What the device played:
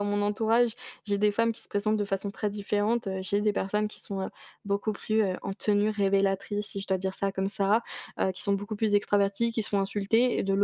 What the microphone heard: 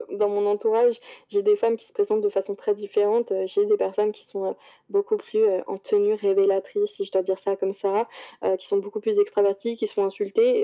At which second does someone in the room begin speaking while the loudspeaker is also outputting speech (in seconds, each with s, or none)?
none